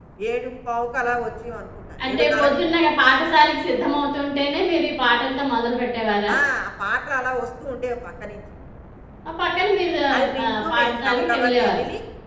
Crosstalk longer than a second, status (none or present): present